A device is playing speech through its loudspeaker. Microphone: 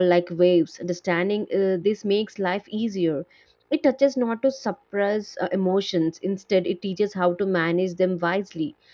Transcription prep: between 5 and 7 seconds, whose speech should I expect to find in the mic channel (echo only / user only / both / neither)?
user only